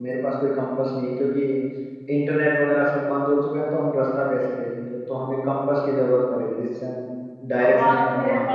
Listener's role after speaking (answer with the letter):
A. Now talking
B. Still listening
A